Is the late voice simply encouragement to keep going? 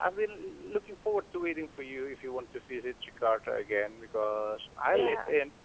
Yes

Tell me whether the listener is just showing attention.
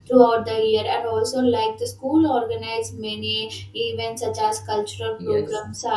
No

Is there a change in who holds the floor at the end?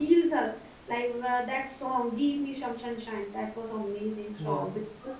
No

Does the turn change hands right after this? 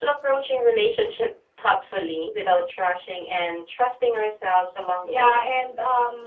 Yes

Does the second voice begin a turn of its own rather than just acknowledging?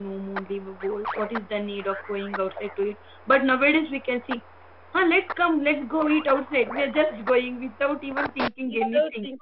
Yes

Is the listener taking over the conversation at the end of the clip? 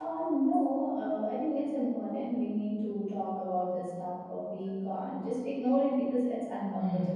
Yes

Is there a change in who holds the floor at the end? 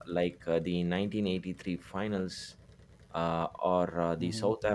No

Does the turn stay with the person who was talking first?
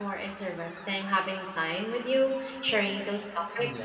Yes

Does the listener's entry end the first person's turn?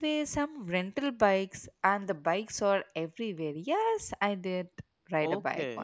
Yes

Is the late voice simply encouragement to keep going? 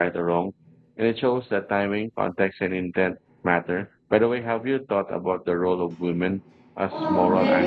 No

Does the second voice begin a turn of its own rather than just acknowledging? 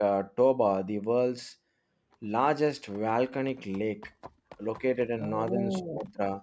No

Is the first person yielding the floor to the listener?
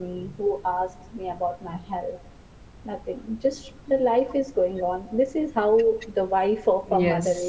Yes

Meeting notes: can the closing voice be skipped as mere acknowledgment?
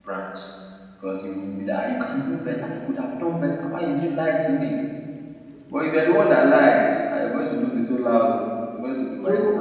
No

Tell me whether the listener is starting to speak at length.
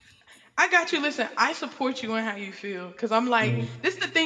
No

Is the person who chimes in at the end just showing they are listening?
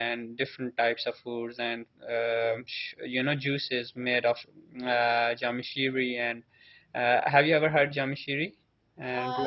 No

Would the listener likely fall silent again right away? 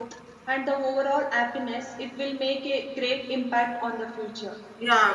No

